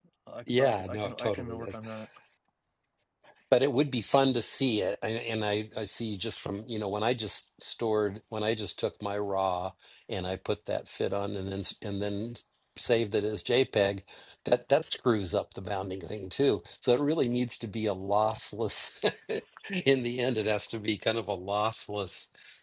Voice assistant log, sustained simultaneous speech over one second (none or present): present